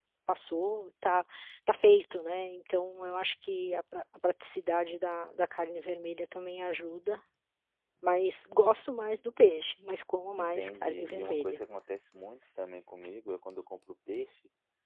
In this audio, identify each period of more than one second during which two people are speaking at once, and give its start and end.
10.4-11.6

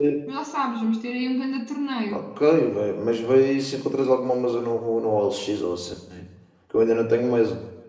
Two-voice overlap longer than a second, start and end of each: none

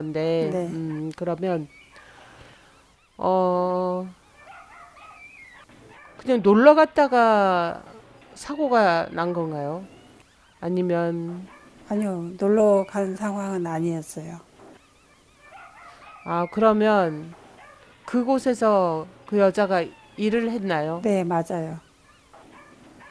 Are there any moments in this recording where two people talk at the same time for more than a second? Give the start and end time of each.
none

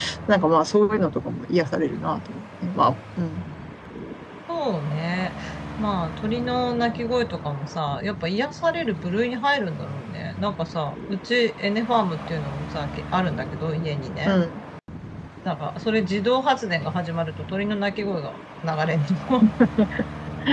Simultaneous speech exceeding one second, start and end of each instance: none

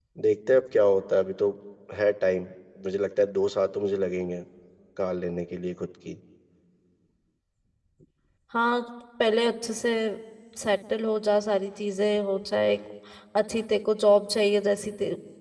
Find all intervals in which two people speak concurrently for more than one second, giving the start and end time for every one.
none

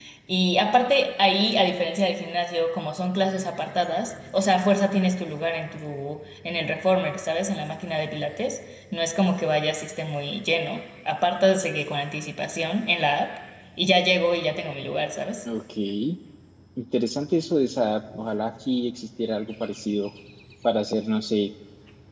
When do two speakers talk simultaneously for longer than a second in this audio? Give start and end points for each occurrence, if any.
none

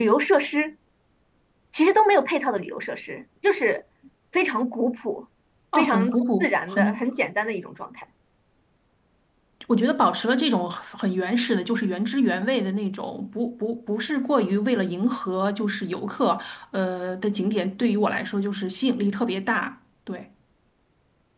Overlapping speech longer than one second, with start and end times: 5.8-7.0

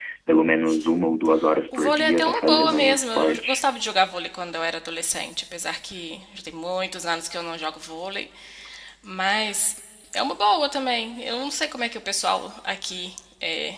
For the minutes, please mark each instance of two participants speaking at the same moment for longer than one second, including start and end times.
1.7-3.6

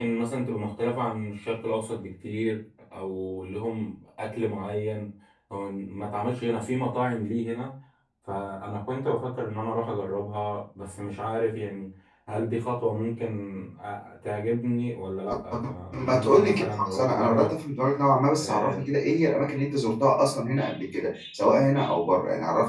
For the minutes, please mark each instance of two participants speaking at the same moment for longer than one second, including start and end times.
16.0-17.5

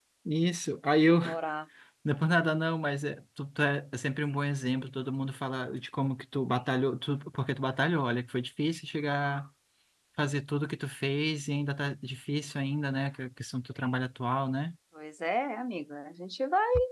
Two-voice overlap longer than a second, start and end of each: none

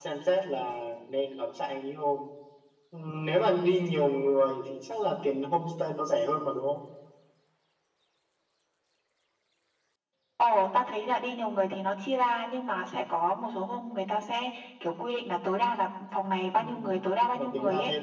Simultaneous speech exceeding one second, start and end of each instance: none

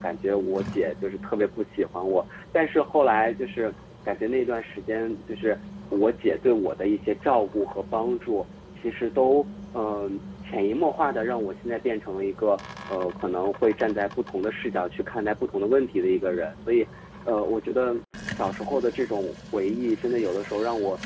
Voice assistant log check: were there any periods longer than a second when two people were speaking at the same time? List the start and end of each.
none

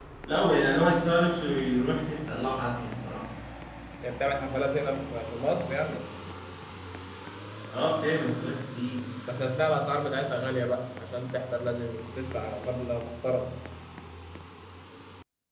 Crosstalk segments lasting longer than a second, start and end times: none

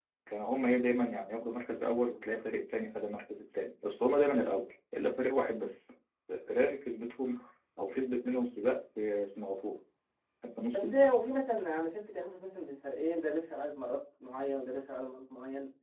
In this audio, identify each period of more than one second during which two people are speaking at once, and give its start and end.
none

